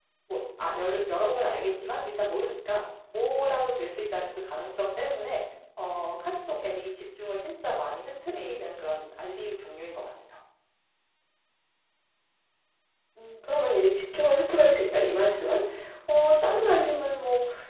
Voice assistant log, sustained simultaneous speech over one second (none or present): none